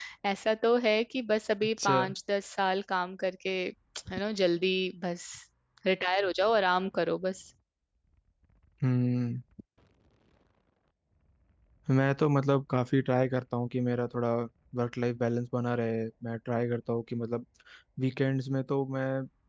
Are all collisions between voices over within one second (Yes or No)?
Yes